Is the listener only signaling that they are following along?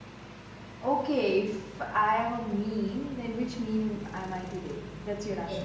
No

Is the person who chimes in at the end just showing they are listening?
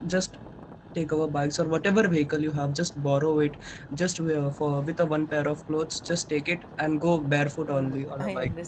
No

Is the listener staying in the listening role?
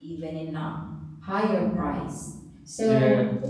Yes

